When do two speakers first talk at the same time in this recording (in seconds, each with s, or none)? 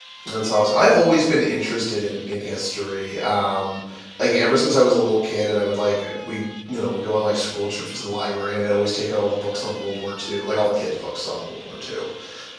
none